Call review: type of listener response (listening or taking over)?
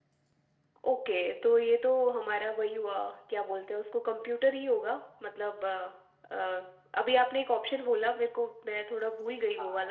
taking over